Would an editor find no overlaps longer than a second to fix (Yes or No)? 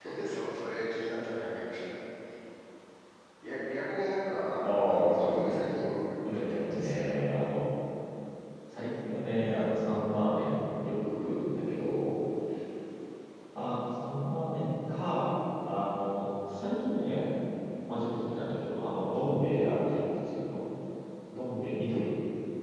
No